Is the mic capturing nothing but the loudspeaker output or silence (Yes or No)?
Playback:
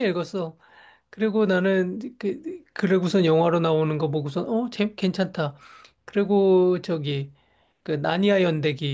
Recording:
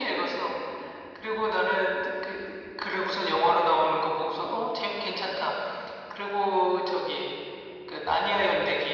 Yes